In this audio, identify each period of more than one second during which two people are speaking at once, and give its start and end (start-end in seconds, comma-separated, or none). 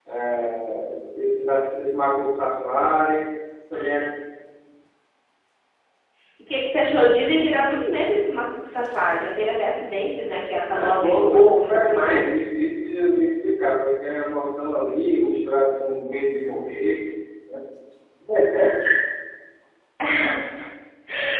10.7-12.2